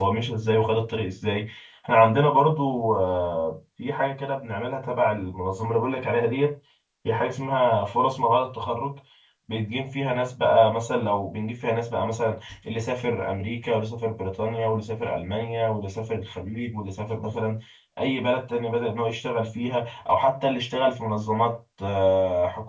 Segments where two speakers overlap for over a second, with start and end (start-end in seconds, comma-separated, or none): none